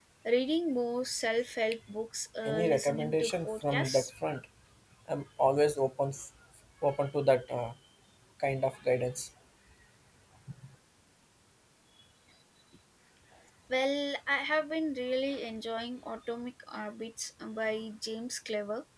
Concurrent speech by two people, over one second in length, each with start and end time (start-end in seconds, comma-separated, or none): 2.5-4.1